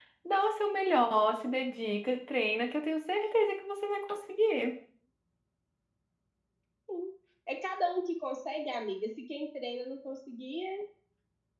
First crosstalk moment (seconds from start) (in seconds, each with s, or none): none